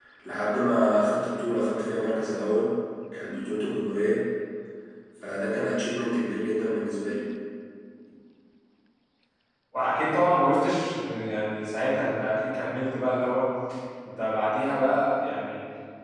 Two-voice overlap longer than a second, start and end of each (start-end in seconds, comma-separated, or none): none